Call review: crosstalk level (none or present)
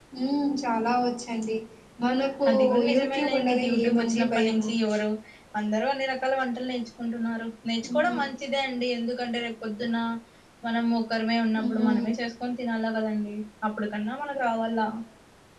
present